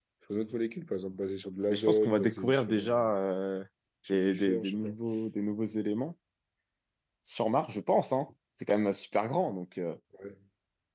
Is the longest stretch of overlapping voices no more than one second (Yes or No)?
No